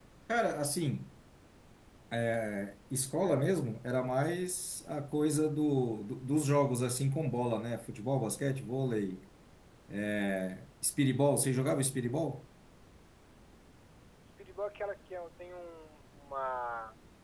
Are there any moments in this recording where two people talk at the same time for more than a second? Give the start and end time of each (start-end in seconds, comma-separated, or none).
none